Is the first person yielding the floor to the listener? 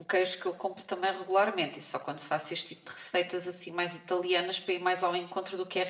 Yes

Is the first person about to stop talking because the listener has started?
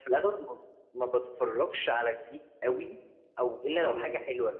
No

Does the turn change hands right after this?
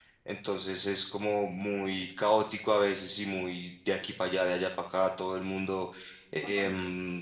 No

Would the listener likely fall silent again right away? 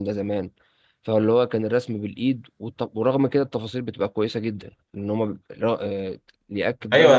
No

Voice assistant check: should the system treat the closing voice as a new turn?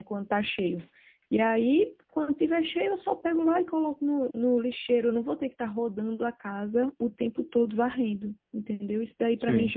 No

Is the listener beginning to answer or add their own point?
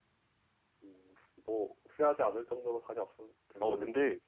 Yes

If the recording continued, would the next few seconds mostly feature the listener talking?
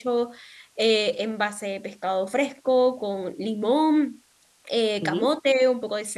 No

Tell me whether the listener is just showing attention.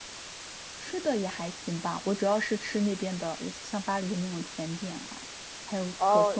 No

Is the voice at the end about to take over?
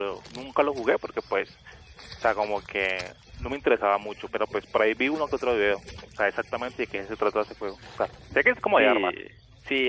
Yes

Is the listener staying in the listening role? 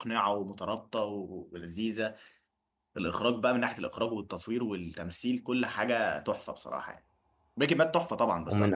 No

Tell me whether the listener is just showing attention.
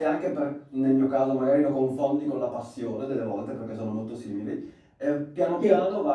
Yes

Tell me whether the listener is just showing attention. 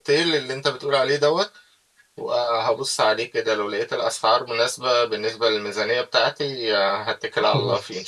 No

